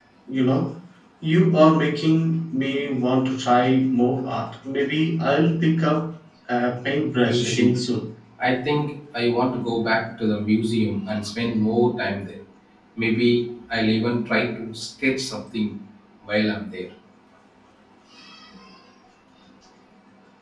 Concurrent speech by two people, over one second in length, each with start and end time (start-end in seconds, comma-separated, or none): none